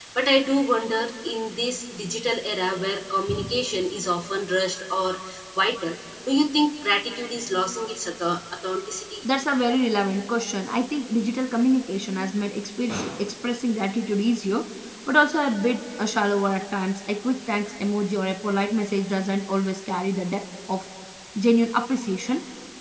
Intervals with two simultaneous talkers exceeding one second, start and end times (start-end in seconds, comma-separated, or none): none